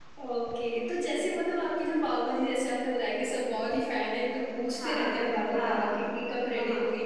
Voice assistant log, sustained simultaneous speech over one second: present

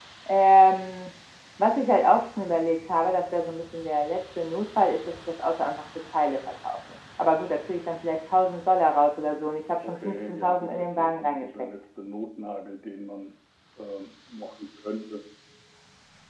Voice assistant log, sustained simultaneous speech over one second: present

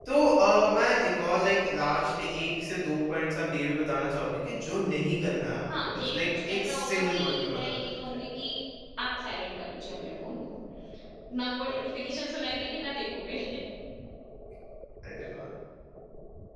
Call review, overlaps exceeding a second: present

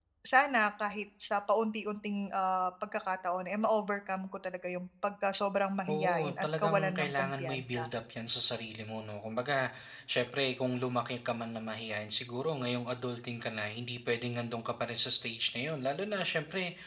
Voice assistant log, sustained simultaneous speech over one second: present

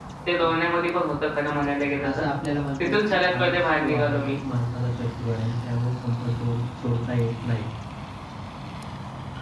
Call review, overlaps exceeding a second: present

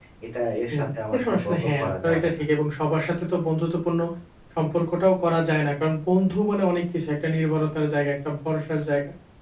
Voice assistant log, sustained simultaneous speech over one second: present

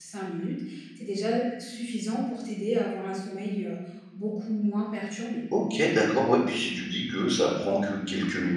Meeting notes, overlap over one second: none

